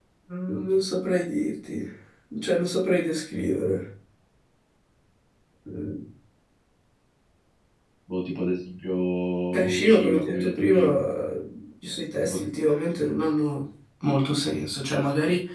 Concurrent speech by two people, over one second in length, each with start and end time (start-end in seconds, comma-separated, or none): 9.5-11.0